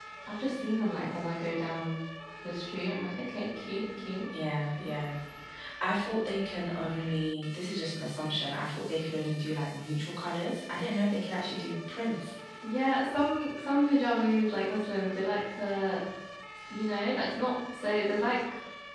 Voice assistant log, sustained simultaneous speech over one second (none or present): none